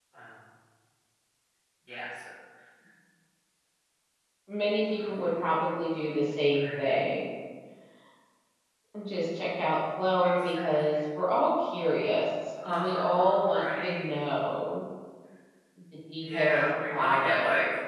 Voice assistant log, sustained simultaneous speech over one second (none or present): present